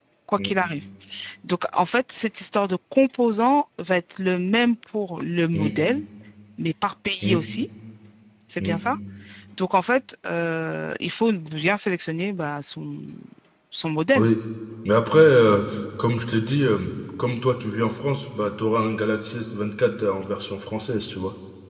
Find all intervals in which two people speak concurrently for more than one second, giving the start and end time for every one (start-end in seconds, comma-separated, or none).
none